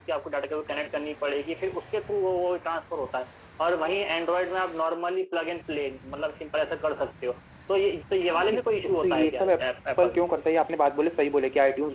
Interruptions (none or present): present